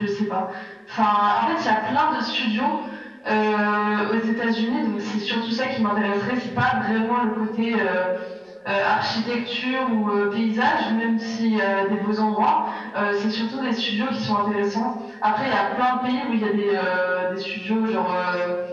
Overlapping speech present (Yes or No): No